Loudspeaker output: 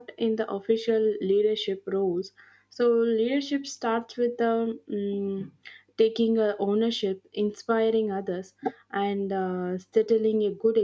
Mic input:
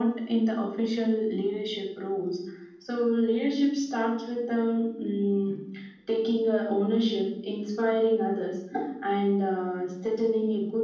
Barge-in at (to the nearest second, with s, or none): none